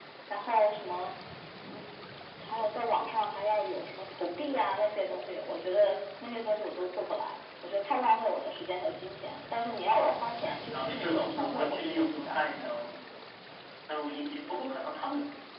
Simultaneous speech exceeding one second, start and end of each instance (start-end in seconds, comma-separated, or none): 9.9-12.4